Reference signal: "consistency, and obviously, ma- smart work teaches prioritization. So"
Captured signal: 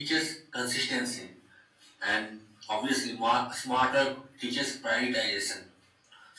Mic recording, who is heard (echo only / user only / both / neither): echo only